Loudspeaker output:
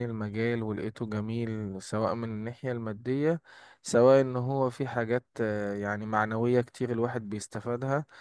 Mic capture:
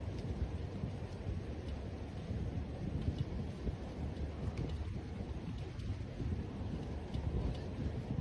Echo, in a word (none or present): none